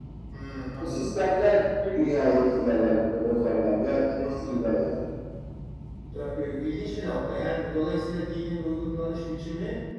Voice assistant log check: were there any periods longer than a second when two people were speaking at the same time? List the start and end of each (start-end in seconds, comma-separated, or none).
none